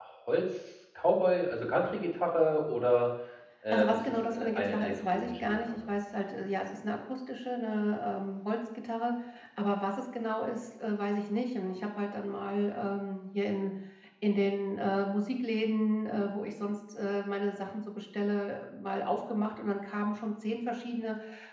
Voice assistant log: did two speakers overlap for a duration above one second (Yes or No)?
Yes